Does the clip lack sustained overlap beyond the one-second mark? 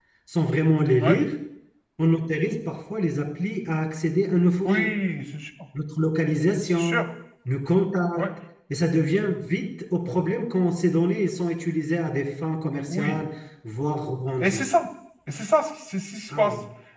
Yes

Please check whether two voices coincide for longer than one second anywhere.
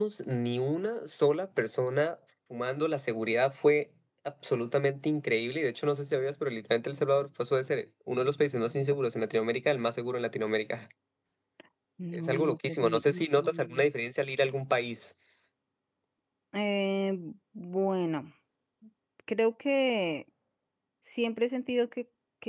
Yes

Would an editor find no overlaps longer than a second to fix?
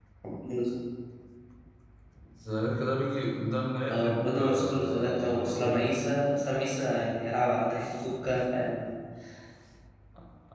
No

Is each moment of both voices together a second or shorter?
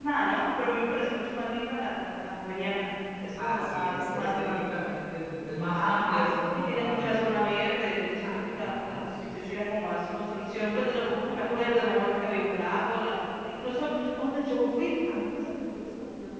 No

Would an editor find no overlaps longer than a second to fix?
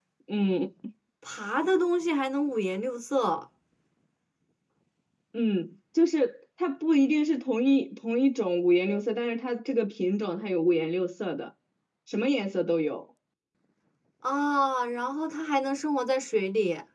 Yes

